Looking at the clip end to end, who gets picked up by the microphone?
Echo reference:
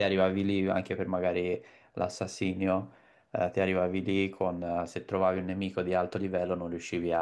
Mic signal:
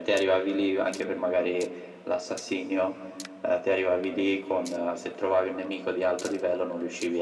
echo only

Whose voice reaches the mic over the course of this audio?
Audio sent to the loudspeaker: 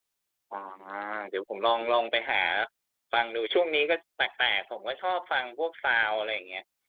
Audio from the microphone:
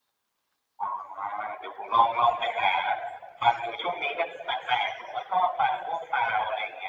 echo only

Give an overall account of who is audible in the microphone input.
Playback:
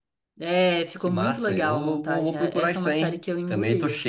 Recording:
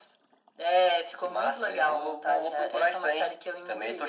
echo only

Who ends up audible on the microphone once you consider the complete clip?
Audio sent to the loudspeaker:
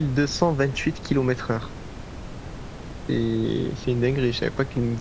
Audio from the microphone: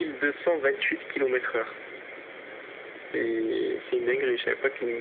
echo only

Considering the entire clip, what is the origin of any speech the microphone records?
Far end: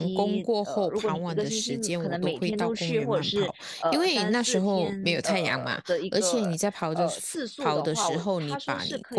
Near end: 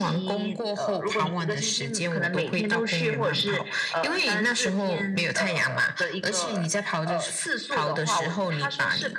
echo only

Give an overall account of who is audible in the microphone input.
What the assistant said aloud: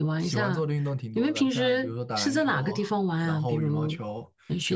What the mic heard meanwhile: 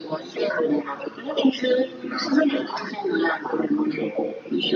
echo only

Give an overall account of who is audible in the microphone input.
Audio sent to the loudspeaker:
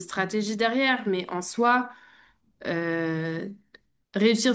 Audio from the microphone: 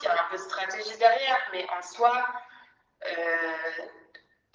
echo only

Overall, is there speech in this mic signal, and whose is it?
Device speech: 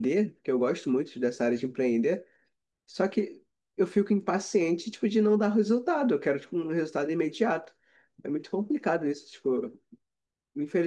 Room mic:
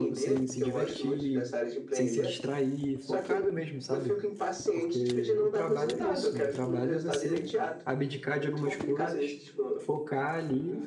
both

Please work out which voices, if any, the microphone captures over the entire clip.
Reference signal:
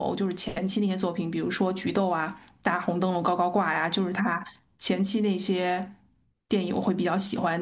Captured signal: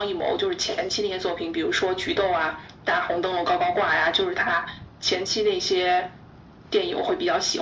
echo only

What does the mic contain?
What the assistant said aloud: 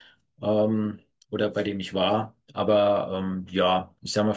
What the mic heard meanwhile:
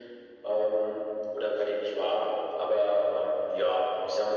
echo only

